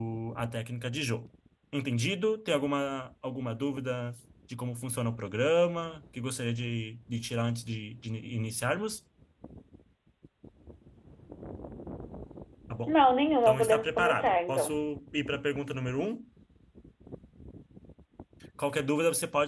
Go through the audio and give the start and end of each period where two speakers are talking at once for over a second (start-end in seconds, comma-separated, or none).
13.4-14.7